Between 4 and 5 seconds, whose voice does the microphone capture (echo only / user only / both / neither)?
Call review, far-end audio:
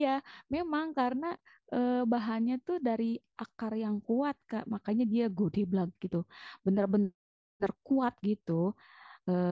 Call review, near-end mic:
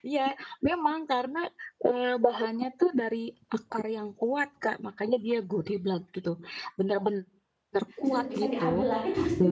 echo only